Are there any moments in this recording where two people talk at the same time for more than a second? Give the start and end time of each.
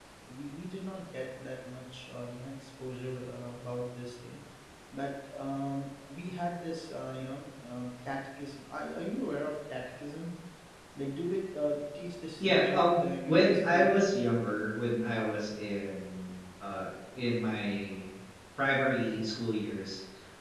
12.4-13.9

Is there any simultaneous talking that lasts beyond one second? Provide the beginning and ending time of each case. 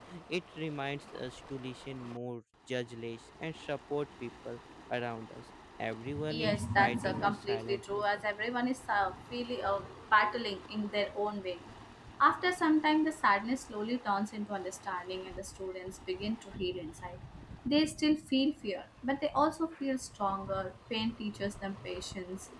6.3-8.0

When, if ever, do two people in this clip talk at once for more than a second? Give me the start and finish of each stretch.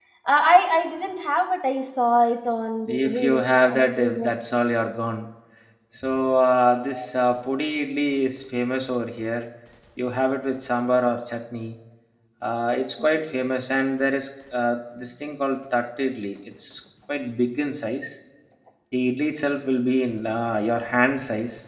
2.9-4.3

